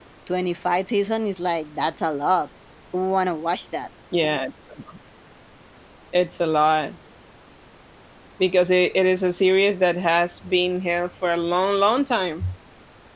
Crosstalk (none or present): none